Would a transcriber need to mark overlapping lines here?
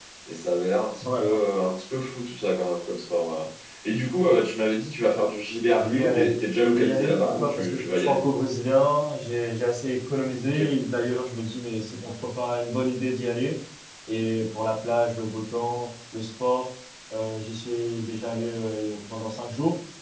Yes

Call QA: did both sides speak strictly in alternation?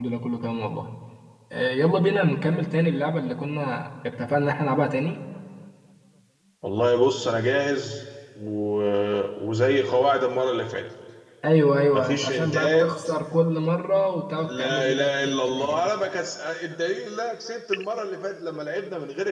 No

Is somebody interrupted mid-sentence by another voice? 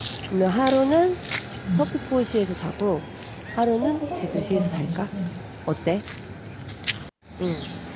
Yes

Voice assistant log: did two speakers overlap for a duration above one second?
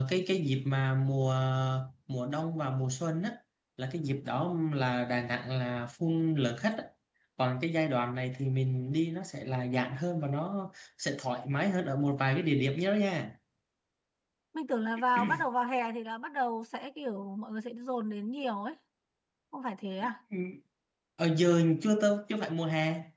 No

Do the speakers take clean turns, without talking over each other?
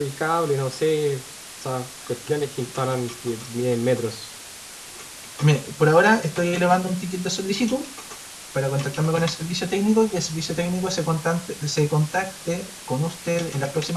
Yes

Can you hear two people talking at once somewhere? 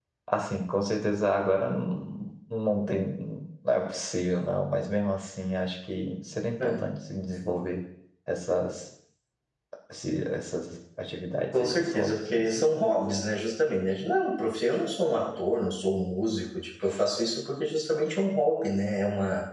Yes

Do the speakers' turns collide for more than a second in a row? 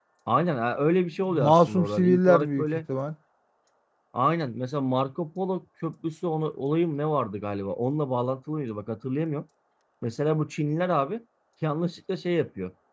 Yes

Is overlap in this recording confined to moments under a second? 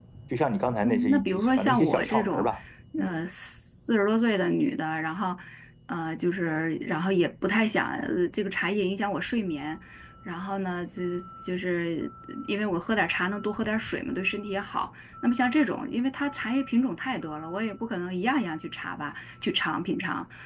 No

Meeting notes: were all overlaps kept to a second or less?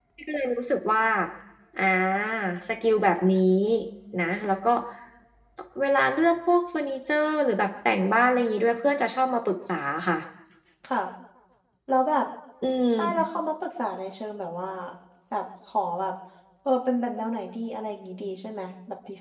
Yes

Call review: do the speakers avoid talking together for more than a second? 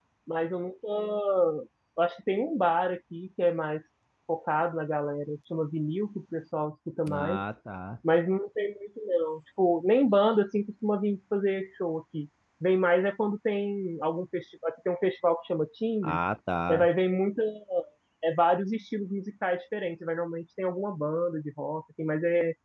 Yes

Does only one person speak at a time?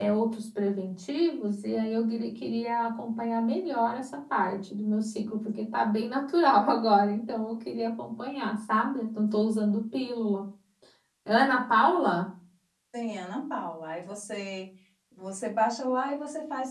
Yes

